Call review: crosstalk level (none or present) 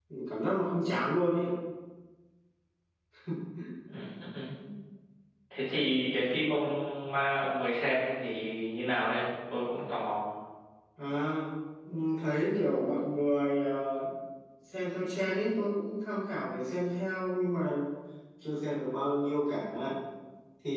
none